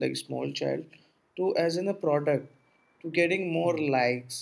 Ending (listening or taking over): listening